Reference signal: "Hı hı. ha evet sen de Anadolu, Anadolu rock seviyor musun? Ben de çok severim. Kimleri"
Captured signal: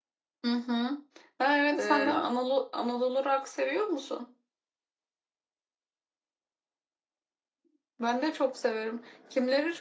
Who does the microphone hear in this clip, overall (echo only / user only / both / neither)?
both